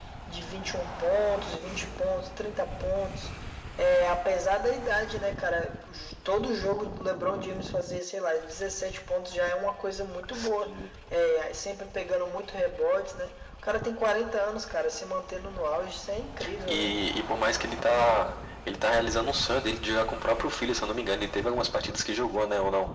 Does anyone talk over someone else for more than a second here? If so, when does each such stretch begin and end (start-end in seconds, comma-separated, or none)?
none